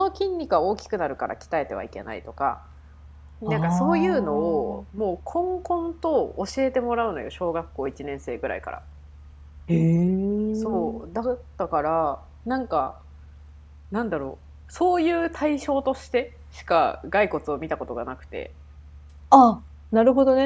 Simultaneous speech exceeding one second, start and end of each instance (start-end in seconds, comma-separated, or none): 3.5-4.8